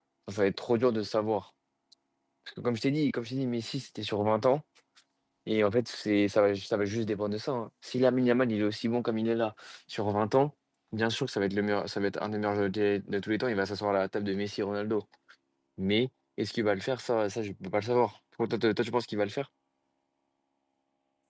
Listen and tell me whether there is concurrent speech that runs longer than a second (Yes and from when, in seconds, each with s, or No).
No